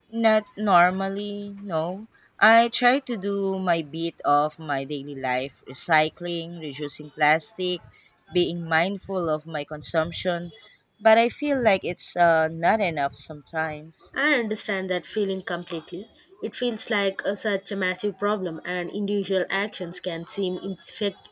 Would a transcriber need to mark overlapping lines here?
No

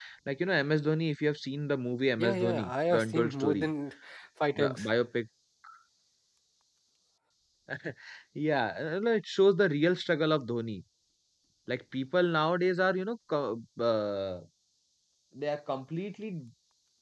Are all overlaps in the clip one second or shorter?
No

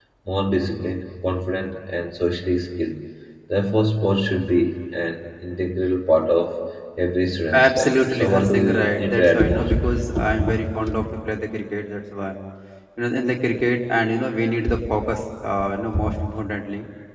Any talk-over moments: Yes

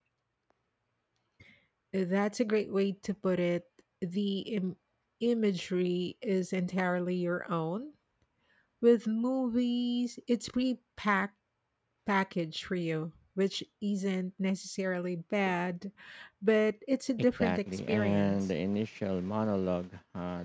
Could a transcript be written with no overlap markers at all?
No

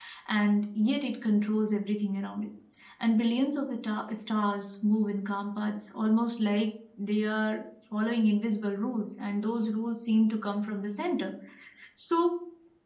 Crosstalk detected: No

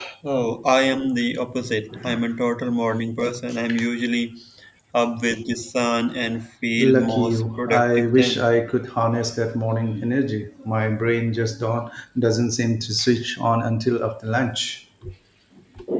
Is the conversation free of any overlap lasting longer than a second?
No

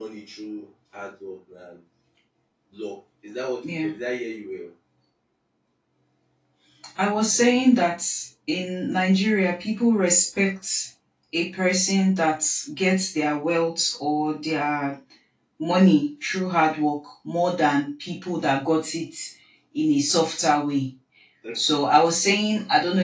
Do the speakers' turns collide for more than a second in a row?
No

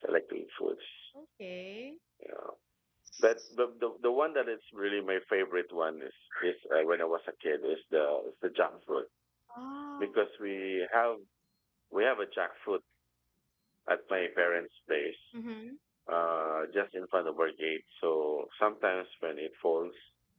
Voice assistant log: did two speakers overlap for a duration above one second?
No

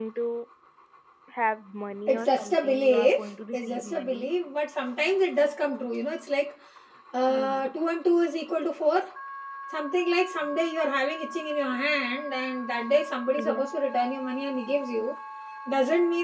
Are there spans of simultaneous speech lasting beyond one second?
Yes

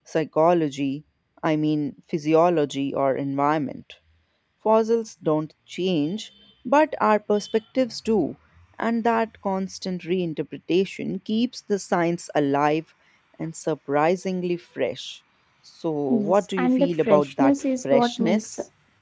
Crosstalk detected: Yes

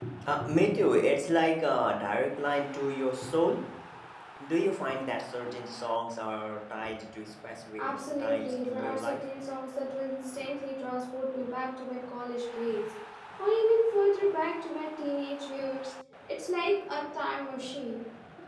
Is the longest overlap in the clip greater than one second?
Yes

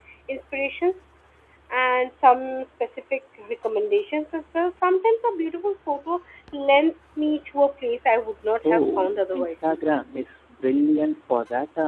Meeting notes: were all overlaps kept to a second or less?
No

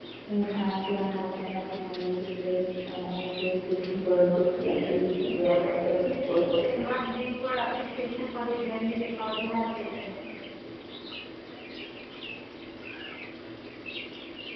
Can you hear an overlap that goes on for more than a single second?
Yes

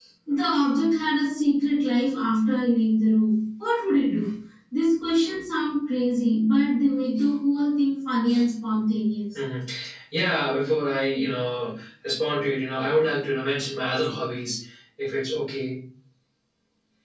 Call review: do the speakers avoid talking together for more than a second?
Yes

